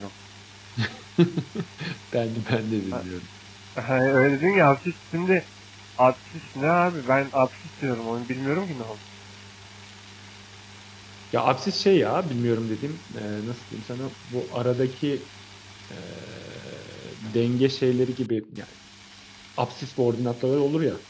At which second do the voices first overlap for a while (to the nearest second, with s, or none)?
none